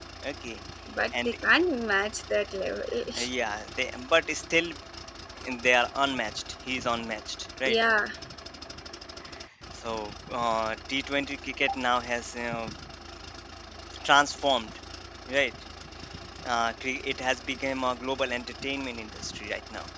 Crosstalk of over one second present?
No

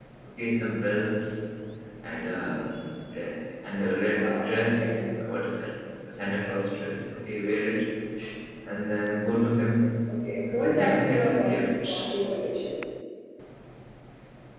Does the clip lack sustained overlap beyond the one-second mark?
No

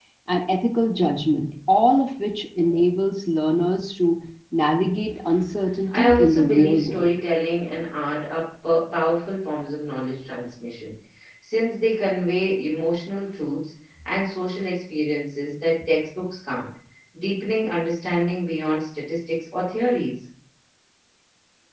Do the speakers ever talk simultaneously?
Yes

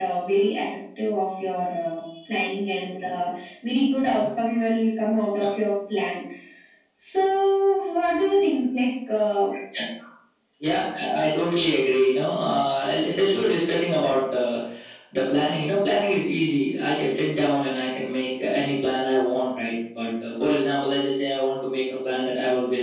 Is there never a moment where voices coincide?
Yes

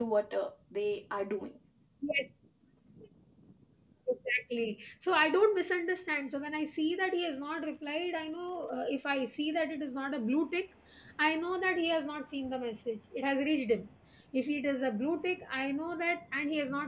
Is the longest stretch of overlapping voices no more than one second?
Yes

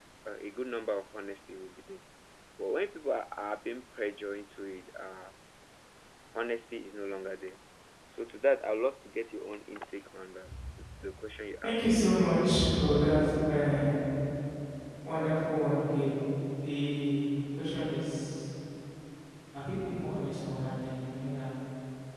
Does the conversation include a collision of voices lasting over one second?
No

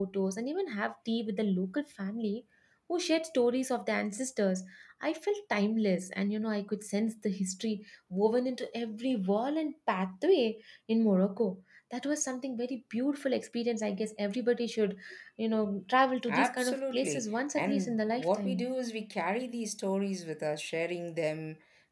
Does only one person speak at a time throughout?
No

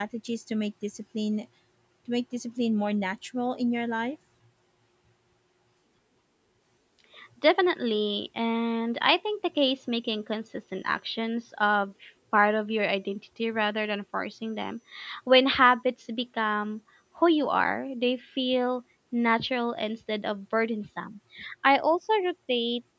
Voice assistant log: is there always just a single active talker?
Yes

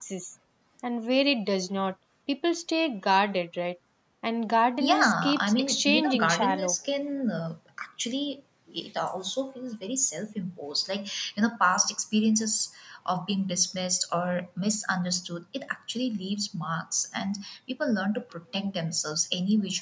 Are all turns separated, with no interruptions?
No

